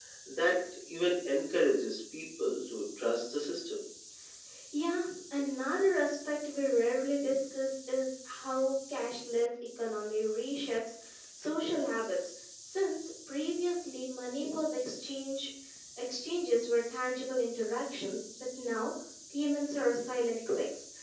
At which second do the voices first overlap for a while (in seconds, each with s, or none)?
none